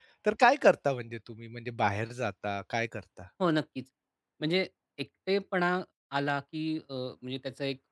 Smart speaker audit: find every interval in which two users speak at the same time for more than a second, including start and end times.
none

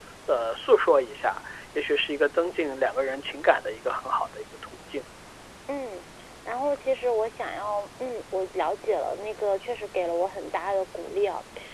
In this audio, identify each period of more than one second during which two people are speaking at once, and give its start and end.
none

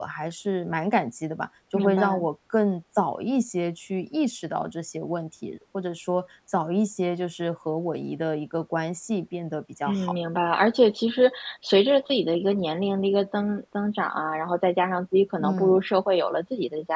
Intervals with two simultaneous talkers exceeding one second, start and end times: none

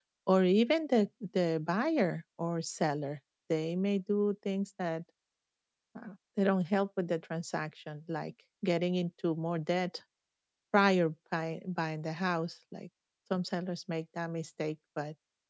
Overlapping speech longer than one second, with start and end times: none

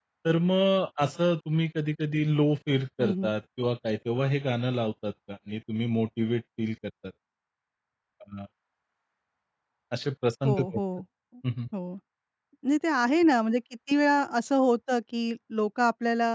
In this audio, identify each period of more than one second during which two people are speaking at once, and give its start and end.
none

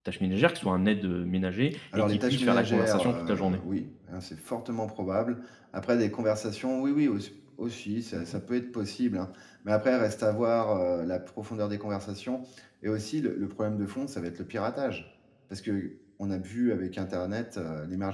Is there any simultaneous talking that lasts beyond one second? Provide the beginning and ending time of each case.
2.0-3.6

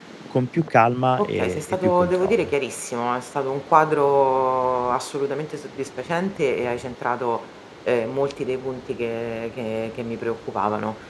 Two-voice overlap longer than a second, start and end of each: 1.2-2.5

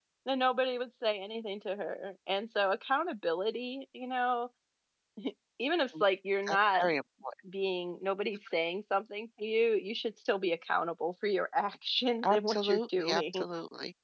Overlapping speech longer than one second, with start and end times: 12.2-13.4

